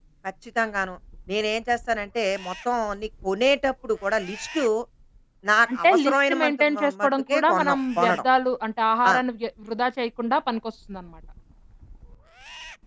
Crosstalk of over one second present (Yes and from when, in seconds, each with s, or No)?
Yes, from 5.8 s